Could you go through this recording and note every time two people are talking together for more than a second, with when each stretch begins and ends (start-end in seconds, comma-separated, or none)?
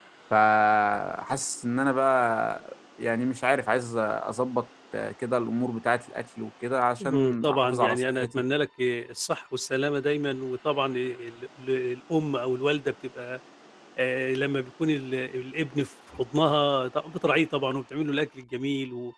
7.0-8.4